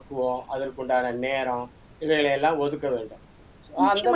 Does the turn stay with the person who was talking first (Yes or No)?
No